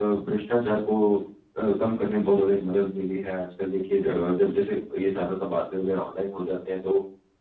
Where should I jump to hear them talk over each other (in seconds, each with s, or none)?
none